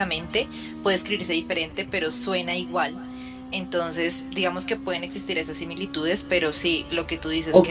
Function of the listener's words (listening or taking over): taking over